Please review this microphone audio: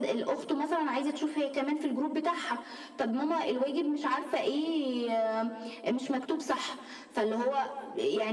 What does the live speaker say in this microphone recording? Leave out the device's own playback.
none

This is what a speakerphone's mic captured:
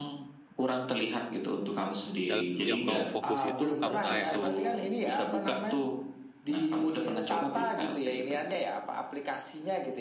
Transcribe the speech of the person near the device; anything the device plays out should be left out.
dalam sejam kamu fokus itu kamu kayak emang

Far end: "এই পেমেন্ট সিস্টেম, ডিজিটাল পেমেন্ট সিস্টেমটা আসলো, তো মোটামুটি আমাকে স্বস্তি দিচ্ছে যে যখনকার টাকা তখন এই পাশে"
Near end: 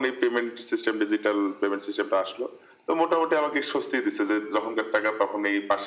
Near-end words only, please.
none

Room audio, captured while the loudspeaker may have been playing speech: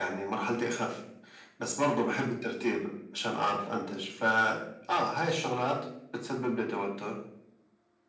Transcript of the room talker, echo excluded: none

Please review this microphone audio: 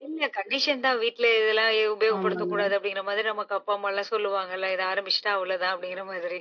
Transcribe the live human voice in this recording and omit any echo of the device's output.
ஆமாங்க.

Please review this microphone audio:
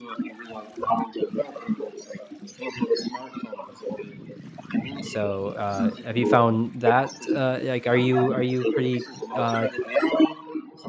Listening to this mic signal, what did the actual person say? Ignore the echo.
So, uh, have you found that, uh, like, are you are you pretty, uh,

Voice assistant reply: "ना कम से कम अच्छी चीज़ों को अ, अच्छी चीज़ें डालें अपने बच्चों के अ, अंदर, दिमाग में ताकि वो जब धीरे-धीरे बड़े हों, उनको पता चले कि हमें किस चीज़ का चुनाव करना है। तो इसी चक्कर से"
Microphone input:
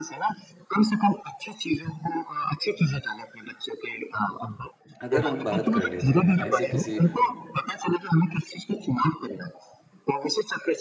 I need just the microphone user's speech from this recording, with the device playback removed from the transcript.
अगर हम बात कर लेते हैं ऐसे किसी

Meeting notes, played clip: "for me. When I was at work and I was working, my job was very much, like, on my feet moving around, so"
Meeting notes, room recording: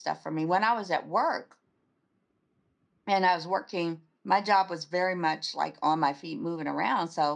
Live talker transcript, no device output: none

